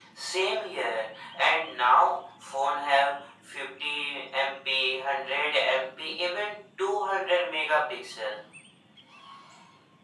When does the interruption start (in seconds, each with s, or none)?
none